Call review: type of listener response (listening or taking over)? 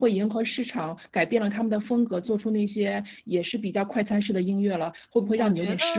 taking over